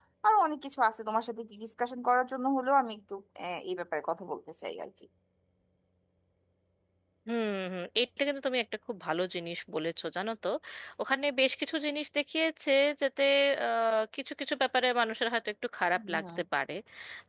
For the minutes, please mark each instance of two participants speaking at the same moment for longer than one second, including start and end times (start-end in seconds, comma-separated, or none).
none